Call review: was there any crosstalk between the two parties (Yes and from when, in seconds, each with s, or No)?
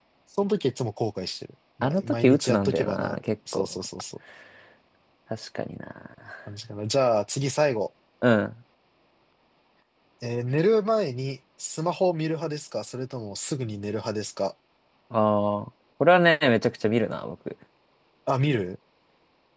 Yes, from 1.8 s